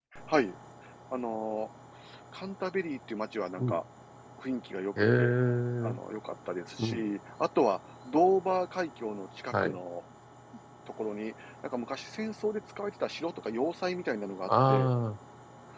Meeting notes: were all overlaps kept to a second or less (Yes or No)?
Yes